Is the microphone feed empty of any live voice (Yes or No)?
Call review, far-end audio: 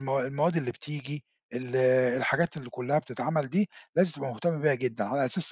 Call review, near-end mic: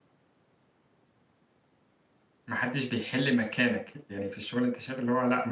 No